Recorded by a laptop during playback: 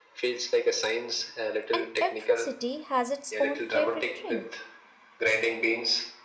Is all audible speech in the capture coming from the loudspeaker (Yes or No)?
No